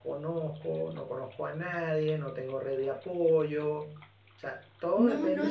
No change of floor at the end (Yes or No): No